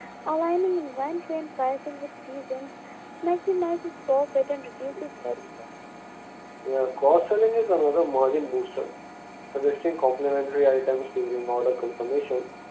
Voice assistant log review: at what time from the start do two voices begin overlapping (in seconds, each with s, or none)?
none